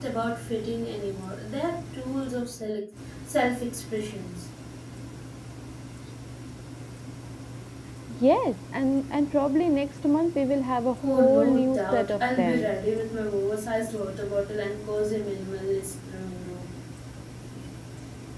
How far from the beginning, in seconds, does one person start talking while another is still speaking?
11.0 s

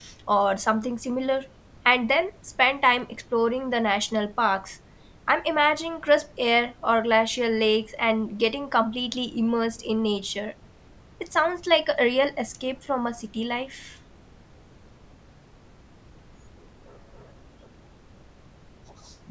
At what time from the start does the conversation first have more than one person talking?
none

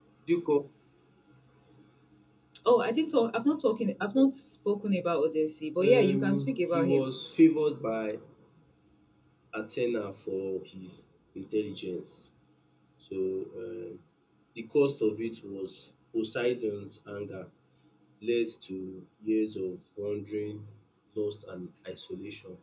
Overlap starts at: 5.8 s

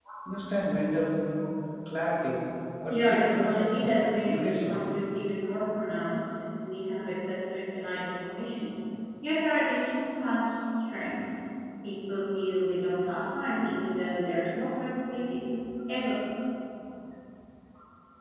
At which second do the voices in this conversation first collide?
2.9 s

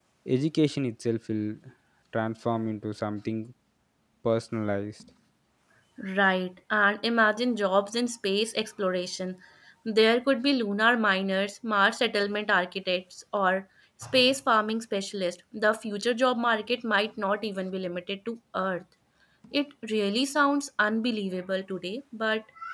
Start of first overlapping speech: none

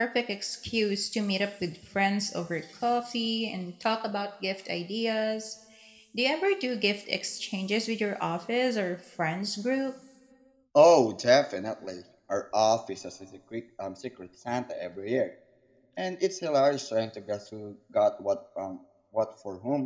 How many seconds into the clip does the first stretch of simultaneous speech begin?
none

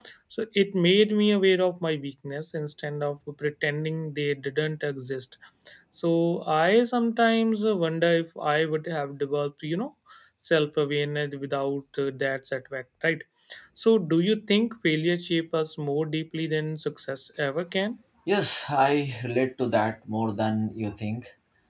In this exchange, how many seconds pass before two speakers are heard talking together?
none

